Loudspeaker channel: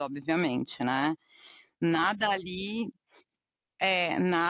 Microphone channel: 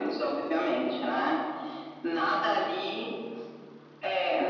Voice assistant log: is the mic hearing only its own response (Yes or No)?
Yes